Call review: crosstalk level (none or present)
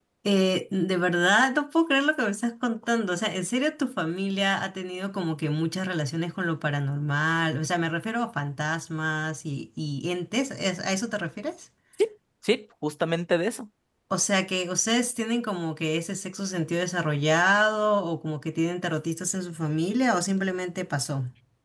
none